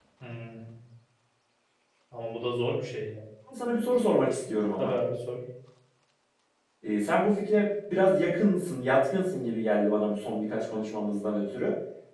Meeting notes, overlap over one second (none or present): none